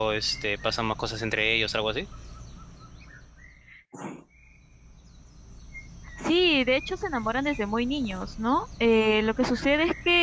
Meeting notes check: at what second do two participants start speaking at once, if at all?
none

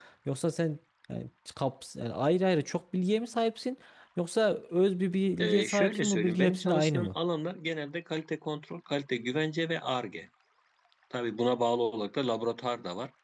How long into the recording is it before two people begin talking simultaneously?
5.4 s

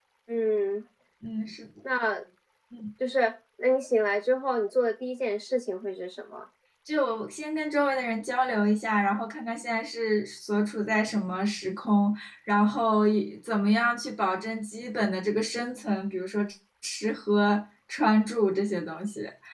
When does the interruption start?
none

